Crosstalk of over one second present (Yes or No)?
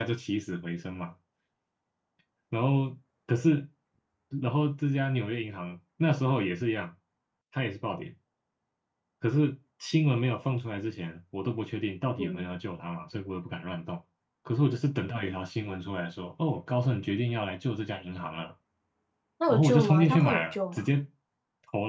Yes